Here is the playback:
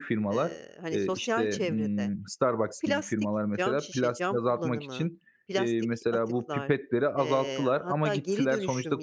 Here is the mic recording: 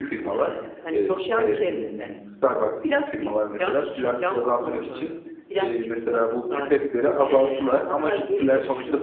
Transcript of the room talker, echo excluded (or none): none